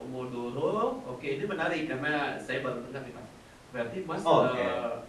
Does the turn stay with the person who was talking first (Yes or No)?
Yes